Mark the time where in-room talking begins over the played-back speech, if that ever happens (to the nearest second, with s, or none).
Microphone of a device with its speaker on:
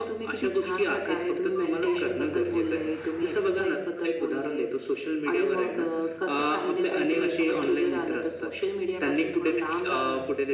none